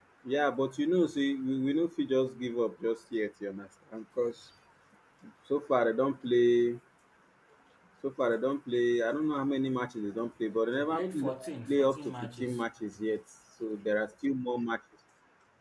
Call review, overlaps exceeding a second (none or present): present